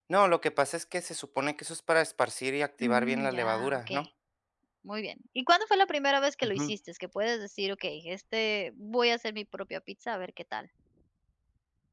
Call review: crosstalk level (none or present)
present